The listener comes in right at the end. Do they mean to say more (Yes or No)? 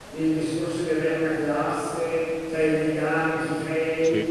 No